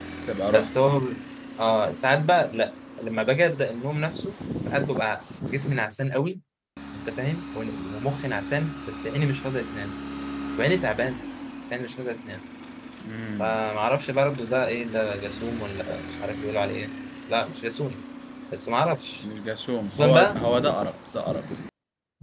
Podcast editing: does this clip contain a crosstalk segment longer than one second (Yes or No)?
No